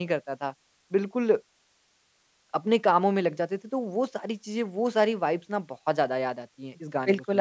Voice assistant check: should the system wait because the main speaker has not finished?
No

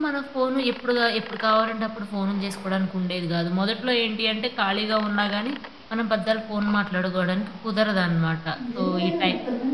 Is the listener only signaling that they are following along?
No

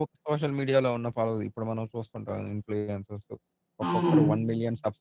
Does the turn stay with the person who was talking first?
Yes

